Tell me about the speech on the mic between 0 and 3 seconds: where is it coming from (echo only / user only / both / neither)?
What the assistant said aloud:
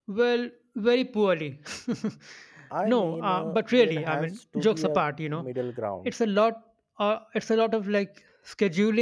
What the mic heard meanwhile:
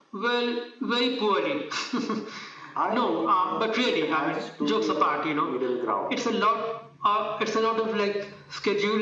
echo only